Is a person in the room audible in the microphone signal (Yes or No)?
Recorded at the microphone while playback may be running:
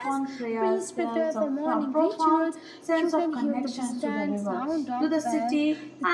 Yes